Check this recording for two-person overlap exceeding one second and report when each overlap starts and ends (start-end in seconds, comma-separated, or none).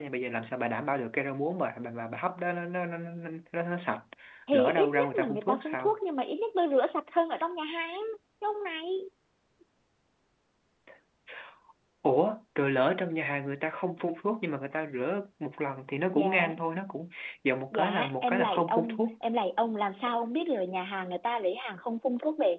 4.5-6.0, 17.7-19.0